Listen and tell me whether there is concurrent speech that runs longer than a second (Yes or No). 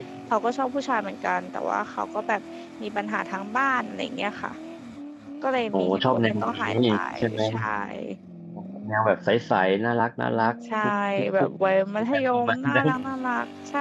Yes